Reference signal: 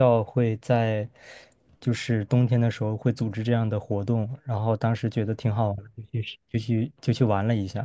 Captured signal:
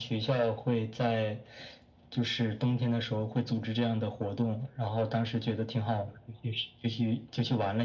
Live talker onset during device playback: none

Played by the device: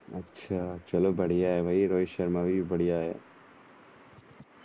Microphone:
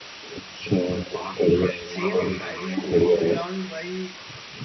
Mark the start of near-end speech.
2 s

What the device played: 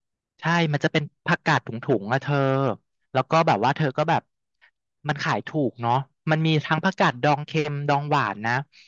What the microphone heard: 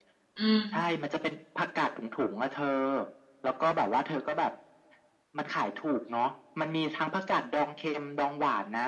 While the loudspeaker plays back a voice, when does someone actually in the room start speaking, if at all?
0 s

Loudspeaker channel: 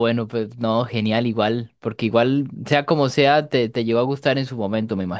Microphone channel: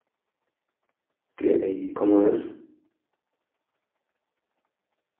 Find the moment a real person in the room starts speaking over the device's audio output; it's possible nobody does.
1 s

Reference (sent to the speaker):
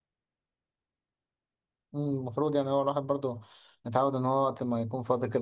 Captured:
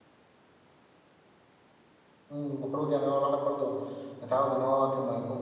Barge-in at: none

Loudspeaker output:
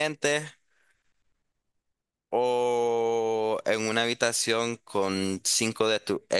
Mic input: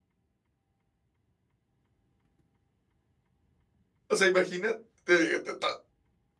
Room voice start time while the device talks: 4 s

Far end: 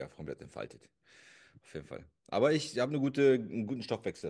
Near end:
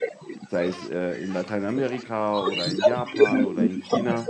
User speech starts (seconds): 0 s

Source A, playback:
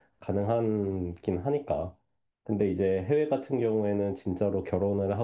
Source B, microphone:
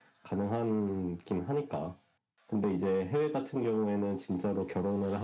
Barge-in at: none

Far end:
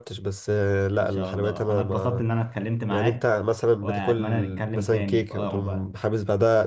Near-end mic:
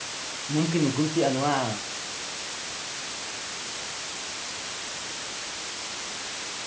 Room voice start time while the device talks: 0 s

